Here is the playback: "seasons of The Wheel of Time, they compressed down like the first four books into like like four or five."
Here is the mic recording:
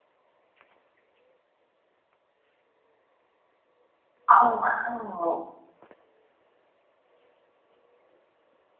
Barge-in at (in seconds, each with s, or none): 4.3 s